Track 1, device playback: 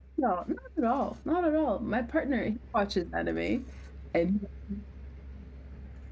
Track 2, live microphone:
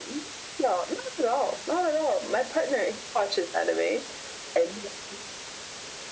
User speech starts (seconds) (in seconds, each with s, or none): none